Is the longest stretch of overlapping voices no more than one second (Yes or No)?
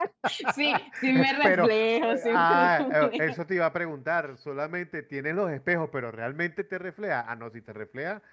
No